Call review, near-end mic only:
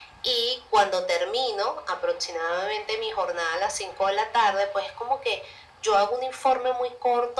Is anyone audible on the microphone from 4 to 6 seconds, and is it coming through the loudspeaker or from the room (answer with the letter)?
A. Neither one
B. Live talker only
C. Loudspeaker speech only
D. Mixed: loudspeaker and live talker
C